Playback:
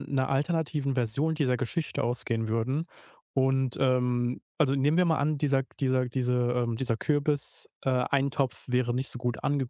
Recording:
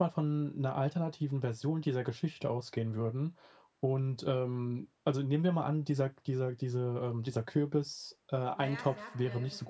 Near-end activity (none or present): present